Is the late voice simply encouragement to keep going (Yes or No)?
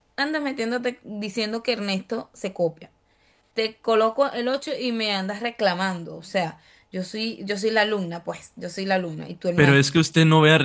No